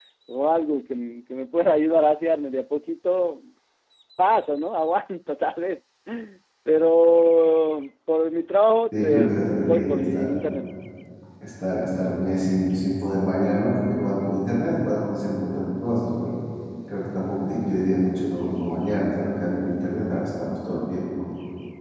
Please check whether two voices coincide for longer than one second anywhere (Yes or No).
Yes